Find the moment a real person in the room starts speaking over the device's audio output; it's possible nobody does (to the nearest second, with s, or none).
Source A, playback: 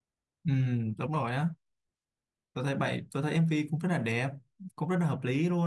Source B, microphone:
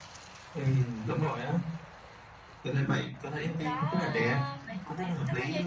4 s